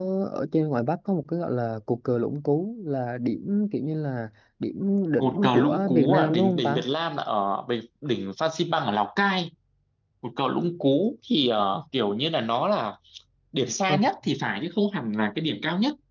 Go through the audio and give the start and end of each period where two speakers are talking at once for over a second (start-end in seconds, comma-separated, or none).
5.2-6.8